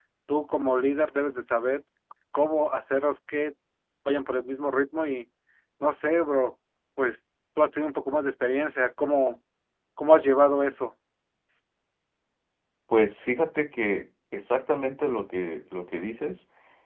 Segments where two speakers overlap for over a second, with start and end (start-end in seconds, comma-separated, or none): none